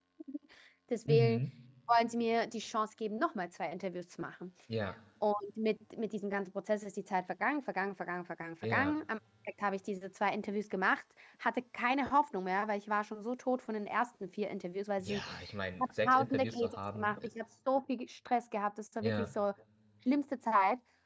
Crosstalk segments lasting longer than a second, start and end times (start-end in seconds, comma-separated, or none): 15.8-17.1